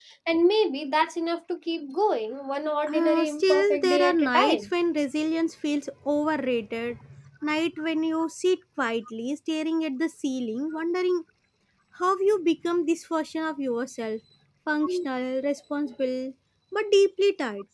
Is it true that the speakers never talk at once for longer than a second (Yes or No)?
No